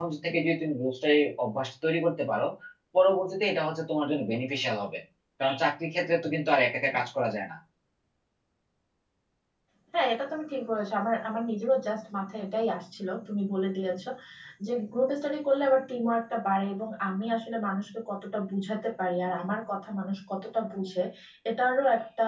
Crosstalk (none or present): none